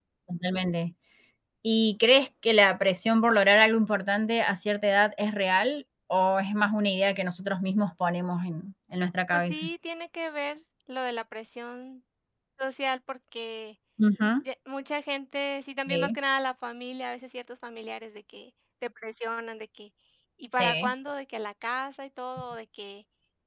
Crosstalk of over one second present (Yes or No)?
No